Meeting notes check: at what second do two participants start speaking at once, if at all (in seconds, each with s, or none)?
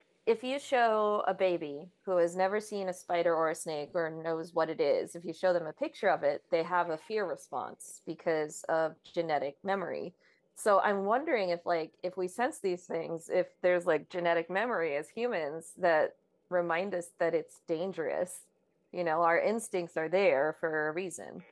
none